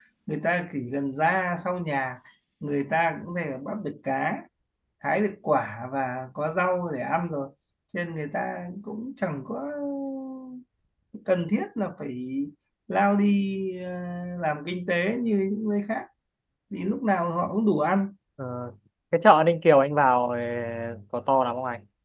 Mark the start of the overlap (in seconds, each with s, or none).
none